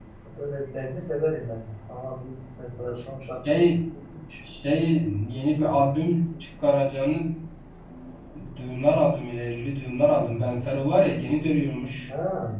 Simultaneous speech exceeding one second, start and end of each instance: none

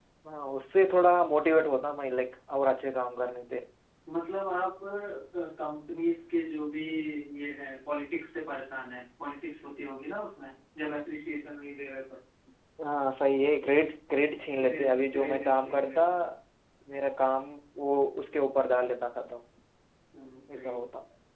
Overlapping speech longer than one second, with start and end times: 14.6-16.0

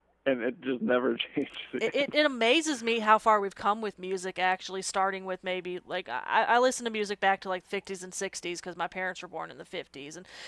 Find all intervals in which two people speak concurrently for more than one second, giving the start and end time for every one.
none

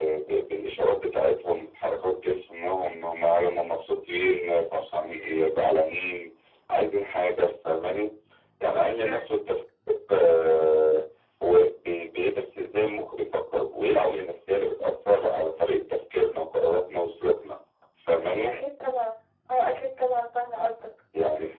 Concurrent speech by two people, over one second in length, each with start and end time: none

